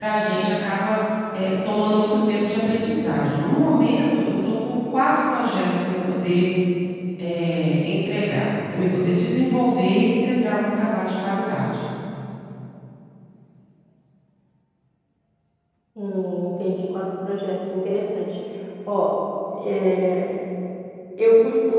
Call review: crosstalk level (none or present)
none